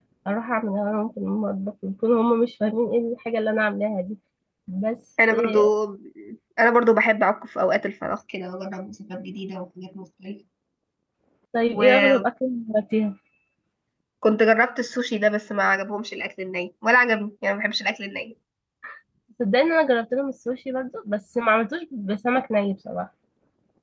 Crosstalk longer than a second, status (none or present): none